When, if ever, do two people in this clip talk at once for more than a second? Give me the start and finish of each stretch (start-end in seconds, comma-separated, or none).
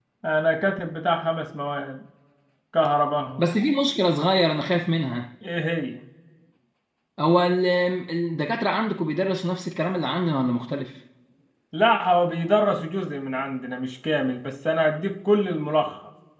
none